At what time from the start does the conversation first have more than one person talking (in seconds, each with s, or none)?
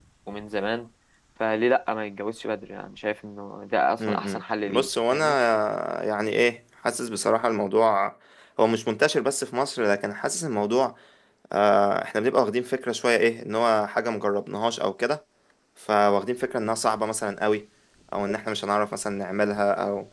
4.0 s